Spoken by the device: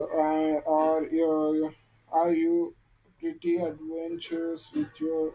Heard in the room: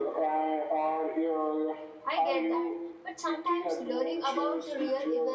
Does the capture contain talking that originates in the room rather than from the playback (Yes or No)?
Yes